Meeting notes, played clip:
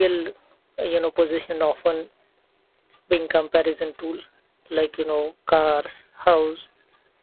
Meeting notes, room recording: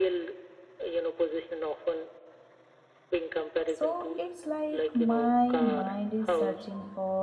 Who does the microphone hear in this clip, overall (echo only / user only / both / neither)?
both